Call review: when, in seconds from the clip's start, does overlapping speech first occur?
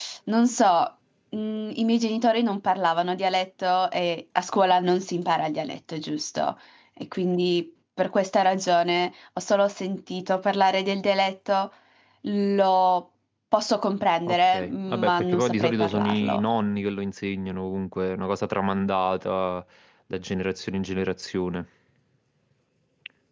14 s

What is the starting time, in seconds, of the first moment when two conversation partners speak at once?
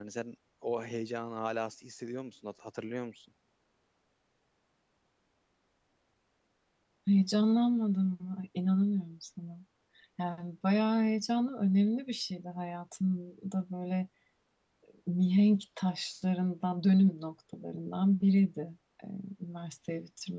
none

